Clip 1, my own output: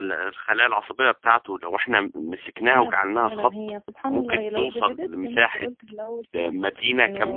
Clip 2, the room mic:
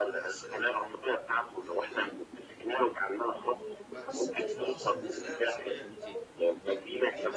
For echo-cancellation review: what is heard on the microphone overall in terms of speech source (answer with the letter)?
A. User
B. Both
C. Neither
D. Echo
B